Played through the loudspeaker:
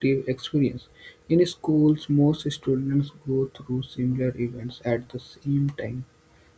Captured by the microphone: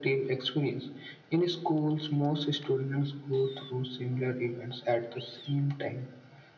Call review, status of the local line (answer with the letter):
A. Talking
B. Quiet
B